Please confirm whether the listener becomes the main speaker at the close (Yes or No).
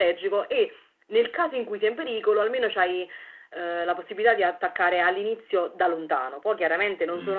No